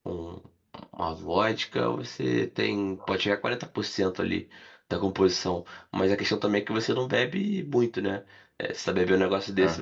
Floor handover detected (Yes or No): No